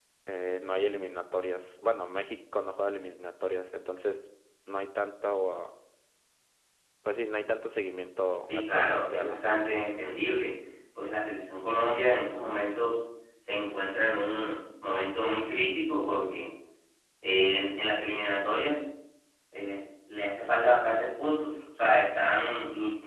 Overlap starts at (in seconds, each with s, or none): 8.5 s